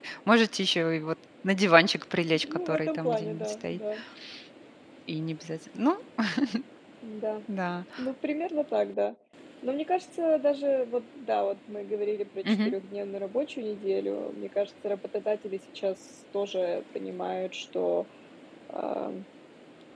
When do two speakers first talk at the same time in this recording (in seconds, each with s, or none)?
2.3 s